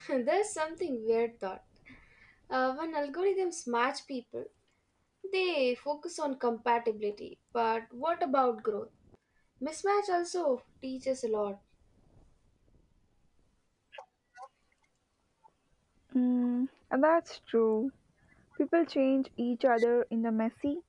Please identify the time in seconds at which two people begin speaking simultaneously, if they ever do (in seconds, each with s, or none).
none